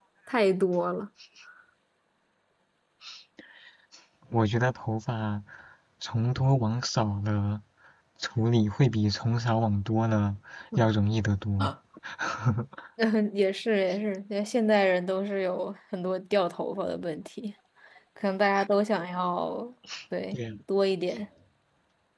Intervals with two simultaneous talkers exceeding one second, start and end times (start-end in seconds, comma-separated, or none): none